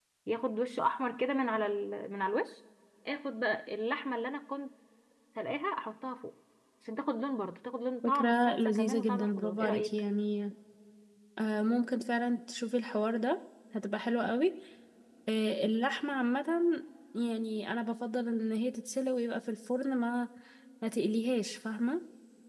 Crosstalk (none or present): present